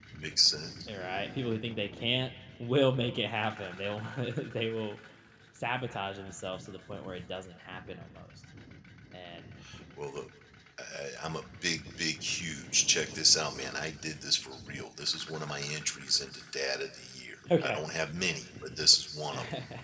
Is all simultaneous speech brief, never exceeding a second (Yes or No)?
Yes